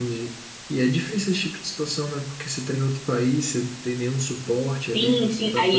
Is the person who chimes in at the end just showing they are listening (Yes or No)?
No